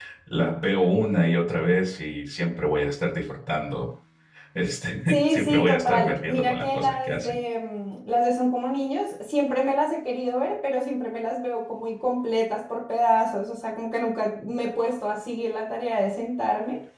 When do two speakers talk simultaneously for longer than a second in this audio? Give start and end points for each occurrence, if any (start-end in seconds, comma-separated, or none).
5.1-7.4